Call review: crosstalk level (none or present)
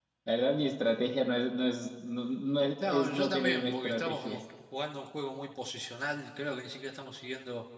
present